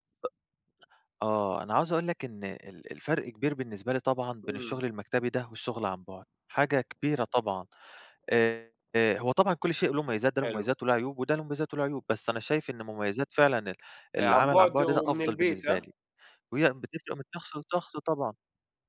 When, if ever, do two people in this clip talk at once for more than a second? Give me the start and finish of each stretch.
14.2-15.8

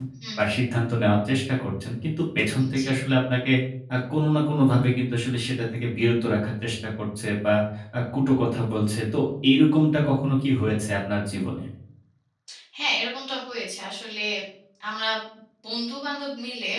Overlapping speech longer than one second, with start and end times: none

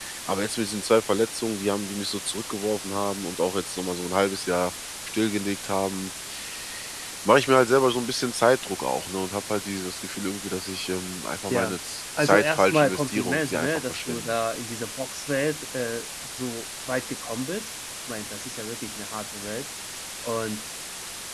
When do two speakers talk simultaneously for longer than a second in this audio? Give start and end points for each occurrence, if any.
12.2-14.3

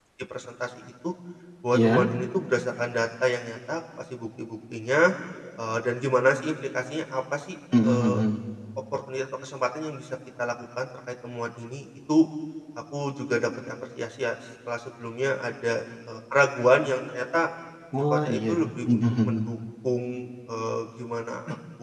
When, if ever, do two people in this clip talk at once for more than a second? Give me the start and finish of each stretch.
18.1-19.6

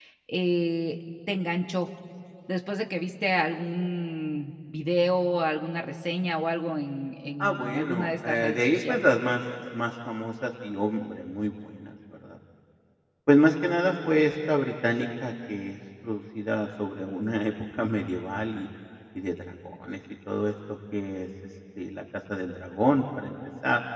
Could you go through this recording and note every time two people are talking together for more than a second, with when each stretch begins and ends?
7.4-9.0

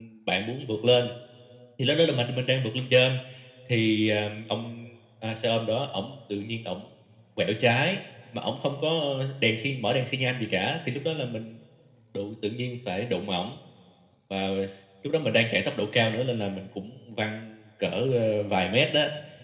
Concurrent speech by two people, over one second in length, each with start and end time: none

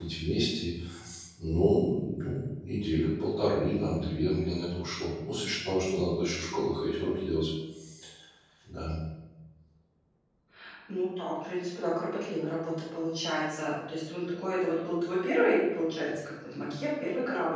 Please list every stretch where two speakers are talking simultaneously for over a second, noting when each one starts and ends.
none

